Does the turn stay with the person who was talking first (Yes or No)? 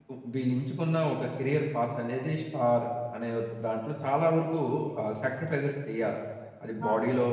Yes